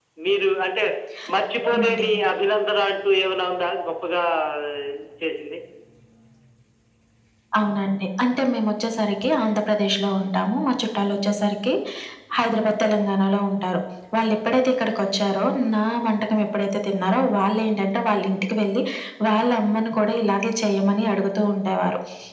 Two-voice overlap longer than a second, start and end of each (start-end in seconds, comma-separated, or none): none